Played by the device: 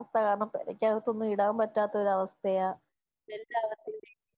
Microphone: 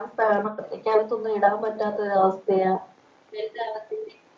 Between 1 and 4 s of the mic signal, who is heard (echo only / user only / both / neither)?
echo only